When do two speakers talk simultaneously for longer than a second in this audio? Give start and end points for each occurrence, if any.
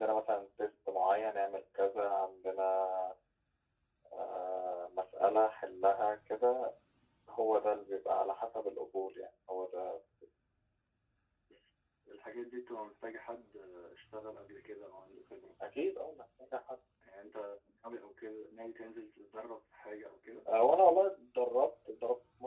none

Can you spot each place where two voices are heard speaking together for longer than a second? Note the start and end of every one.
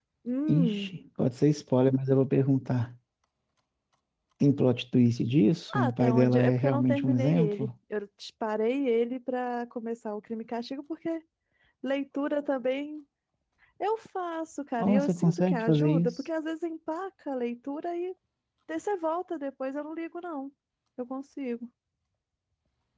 5.7-7.7, 14.8-16.1

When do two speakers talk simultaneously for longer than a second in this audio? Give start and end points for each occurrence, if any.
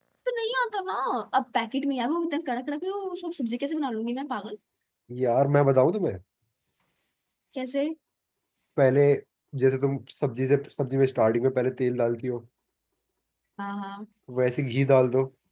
none

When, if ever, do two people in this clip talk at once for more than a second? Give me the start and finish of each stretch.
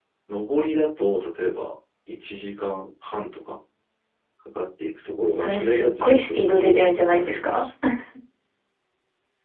5.3-7.6

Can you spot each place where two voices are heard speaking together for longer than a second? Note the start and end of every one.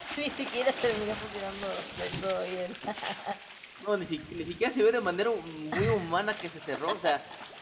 none

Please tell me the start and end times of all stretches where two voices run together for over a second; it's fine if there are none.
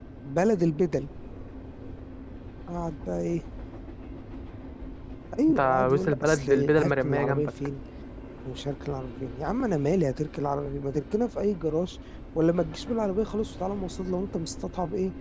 5.5-7.5

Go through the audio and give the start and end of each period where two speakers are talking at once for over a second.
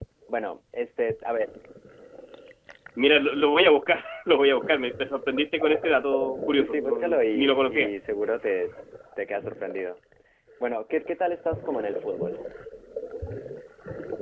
6.5-7.9

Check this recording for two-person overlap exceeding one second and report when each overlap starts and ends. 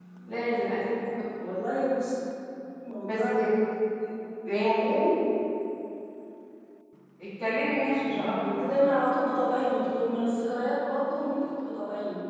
none

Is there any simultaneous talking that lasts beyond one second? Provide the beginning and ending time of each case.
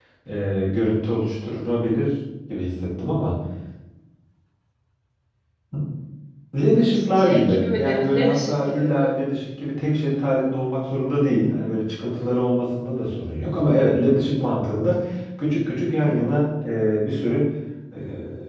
6.9-9.1

